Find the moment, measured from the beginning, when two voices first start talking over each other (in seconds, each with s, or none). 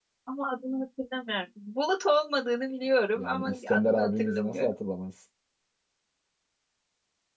3.1 s